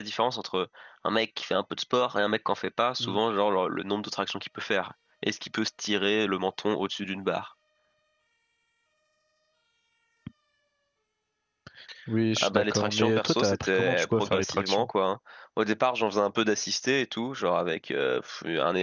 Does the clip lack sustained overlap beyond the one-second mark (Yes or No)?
No